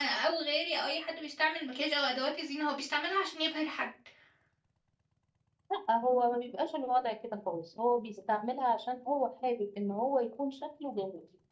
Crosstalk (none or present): none